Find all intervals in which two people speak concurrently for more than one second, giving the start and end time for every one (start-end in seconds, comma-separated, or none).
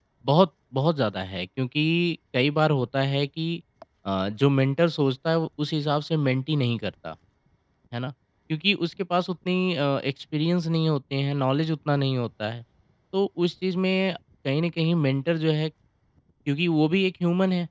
none